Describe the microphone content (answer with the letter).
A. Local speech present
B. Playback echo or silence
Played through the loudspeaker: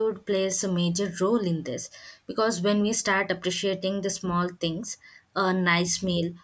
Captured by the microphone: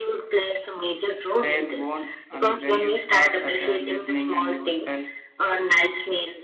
A